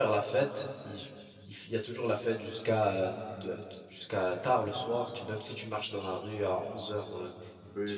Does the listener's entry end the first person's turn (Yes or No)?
Yes